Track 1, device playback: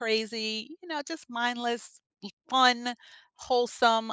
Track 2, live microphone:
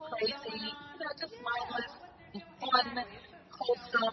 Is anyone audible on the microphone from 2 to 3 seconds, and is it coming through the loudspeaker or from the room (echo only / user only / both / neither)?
both